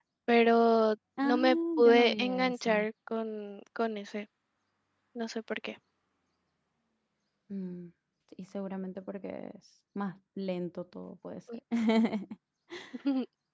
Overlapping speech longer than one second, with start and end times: 1.2-2.9

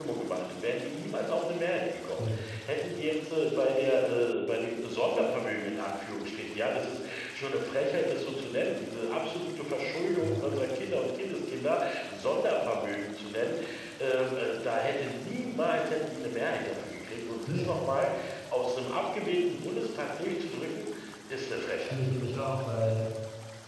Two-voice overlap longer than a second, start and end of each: none

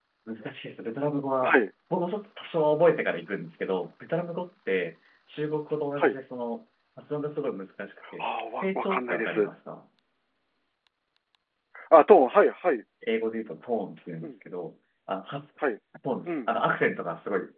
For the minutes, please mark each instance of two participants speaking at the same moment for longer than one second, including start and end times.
8.2-9.5

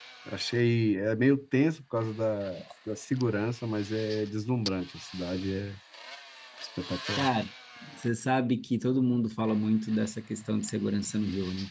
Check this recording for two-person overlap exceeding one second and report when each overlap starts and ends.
none

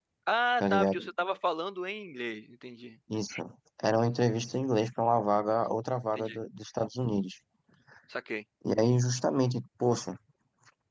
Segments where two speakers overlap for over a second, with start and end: none

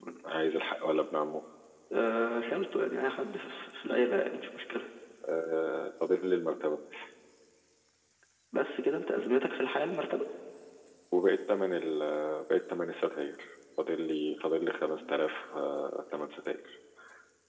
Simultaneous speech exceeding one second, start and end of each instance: none

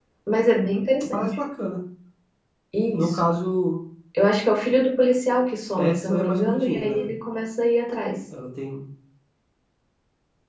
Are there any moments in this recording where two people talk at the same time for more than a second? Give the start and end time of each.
5.8-7.1

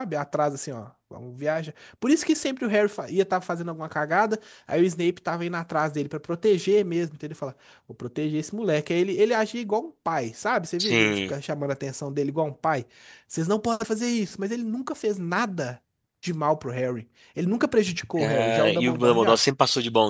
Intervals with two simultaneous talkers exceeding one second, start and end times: 18.2-19.4

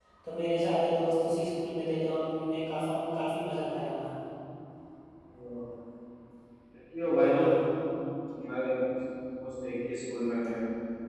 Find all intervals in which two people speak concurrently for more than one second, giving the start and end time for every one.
none

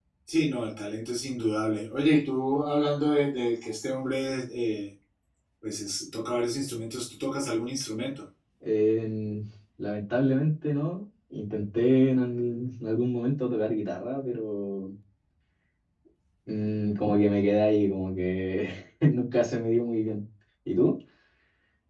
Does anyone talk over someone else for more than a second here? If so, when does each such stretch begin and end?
none

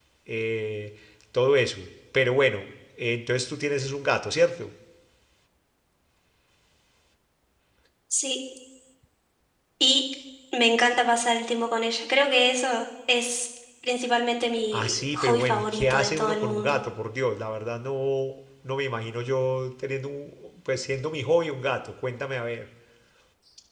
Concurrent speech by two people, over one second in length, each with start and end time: 14.7-16.8

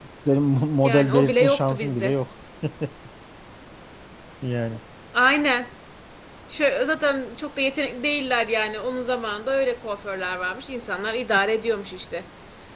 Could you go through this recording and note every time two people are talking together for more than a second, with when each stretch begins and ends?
0.8-2.1

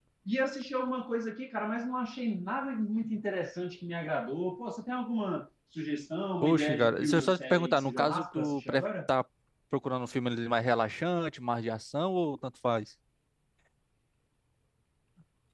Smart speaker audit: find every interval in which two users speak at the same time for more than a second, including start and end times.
6.4-8.8

